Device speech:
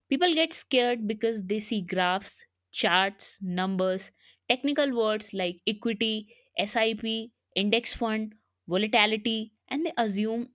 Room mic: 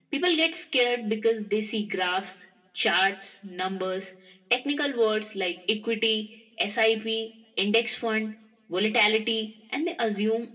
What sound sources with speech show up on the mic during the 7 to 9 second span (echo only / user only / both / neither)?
echo only